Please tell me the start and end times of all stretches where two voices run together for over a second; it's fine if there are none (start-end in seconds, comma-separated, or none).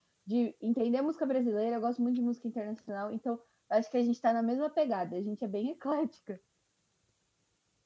none